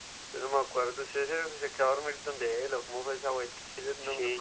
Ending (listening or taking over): taking over